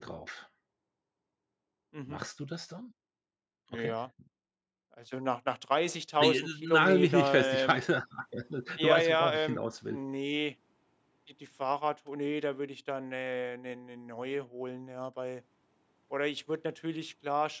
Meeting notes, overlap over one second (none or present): present